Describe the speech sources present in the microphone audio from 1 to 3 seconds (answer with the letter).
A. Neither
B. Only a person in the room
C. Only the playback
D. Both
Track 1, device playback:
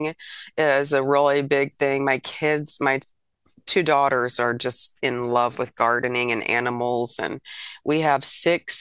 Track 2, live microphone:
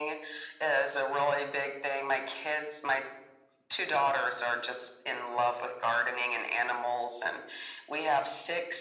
C